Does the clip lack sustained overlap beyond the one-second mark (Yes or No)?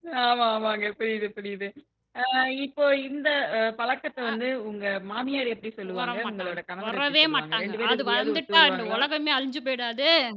No